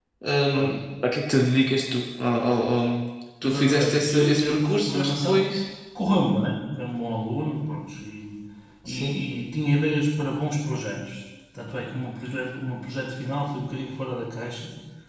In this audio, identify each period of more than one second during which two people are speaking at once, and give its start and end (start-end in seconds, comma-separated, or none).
3.4-5.4